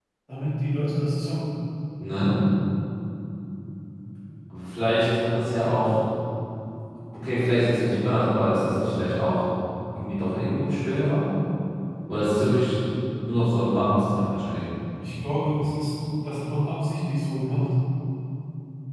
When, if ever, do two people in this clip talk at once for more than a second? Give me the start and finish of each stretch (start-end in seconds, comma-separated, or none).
none